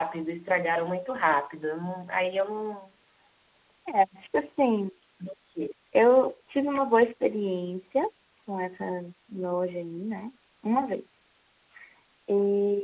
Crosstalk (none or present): none